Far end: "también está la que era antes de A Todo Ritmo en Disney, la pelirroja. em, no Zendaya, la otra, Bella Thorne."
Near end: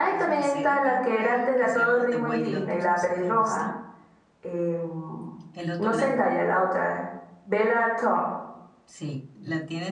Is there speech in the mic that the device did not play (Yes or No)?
Yes